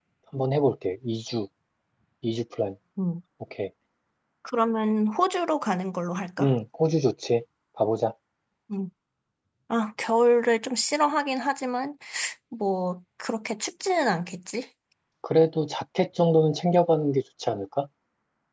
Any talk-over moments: No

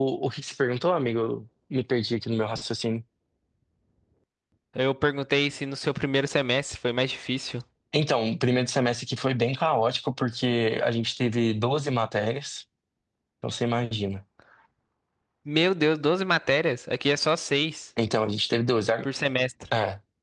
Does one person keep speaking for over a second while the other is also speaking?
No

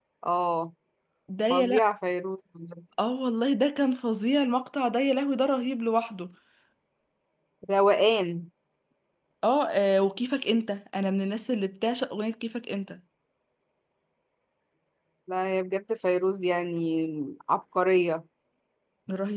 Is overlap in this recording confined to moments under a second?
Yes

